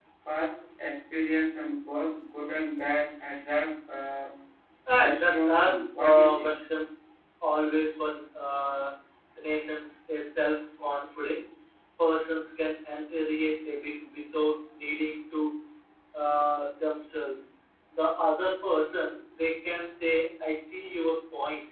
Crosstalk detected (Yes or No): Yes